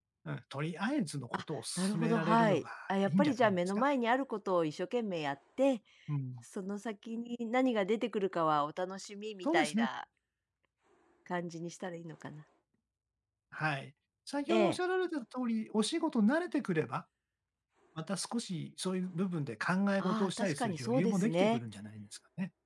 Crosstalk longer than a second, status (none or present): present